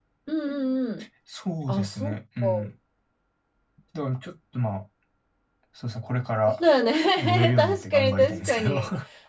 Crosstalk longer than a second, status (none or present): present